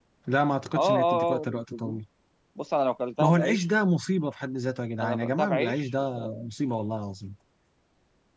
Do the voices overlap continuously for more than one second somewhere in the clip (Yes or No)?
Yes